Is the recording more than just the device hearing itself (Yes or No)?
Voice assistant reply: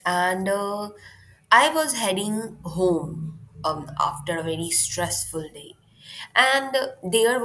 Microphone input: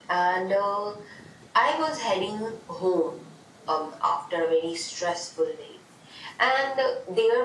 No